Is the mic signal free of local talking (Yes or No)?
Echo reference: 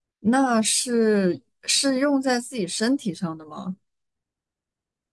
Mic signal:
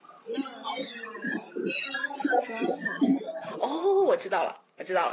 No